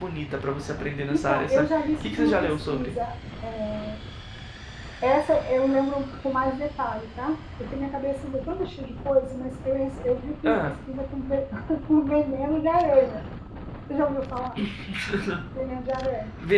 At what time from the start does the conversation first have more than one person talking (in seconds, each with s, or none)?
1.1 s